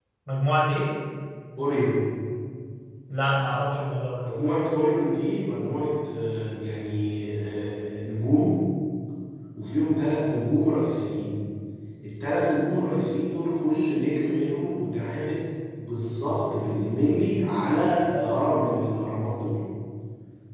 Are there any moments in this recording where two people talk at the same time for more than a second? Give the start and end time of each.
none

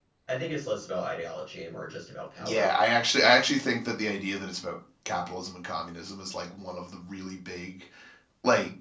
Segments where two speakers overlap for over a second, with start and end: none

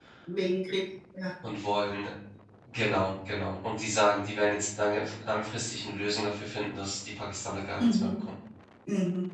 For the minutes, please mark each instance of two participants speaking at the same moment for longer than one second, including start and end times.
none

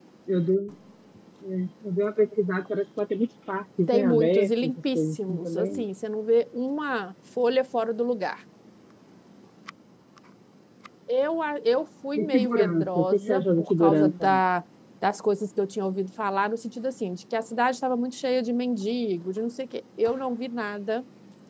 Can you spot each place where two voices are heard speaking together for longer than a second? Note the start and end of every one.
3.9-5.8, 12.2-14.4

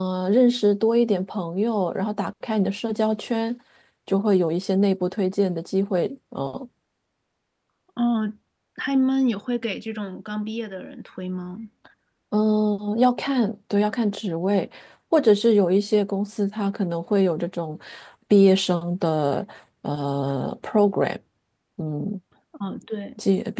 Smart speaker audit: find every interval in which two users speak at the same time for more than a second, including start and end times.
none

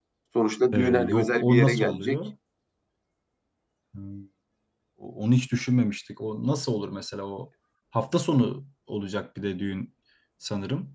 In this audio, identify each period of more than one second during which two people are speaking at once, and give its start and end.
0.7-2.2

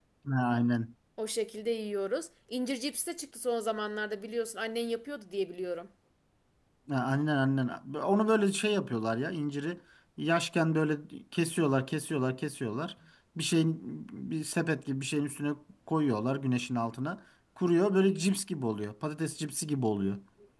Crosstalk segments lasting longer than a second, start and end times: none

